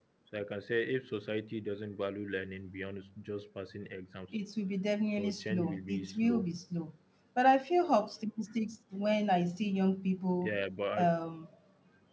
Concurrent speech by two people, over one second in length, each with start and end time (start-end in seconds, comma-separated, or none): 5.2-6.5